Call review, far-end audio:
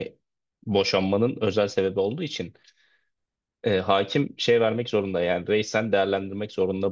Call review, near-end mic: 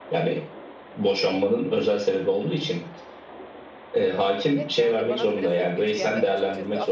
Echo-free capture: No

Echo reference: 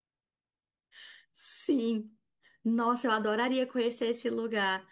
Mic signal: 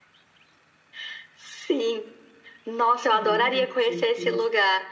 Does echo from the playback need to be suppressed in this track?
Yes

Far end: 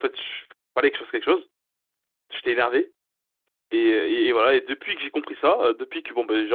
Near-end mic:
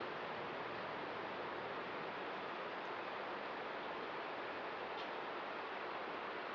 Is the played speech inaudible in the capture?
Yes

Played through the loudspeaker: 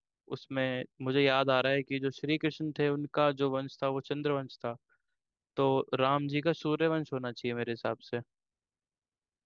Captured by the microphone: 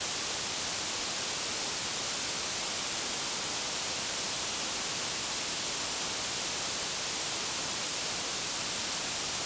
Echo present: No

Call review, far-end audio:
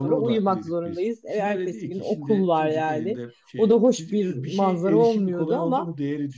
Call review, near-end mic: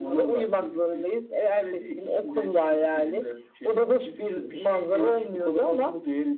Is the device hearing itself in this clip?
Yes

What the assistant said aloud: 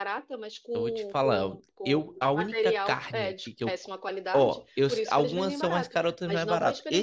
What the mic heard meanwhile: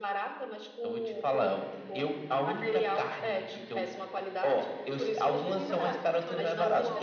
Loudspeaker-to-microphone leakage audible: Yes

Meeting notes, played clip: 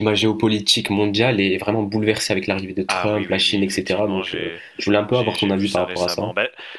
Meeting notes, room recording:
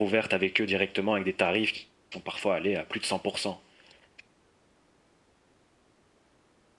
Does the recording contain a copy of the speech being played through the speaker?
No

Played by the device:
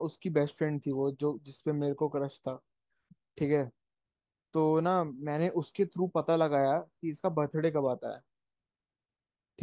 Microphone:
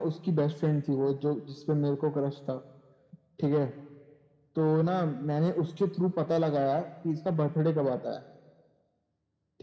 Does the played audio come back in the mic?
Yes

